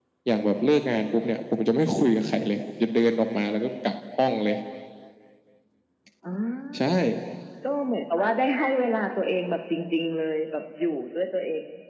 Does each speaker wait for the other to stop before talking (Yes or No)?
Yes